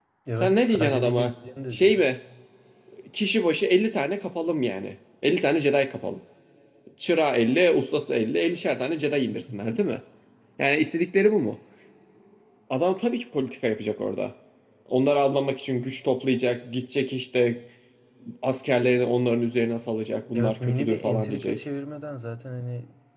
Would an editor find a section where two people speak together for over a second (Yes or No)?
Yes